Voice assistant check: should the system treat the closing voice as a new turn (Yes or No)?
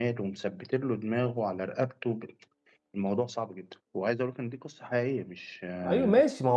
Yes